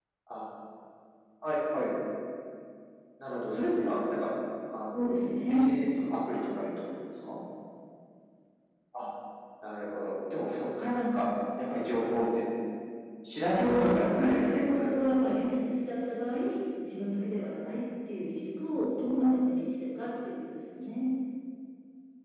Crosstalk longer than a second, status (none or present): present